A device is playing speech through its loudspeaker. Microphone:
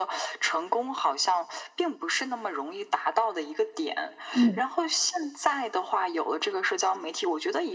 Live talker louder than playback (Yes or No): Yes